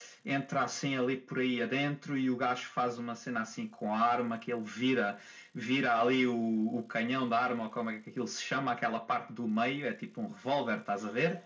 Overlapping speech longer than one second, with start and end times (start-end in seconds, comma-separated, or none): none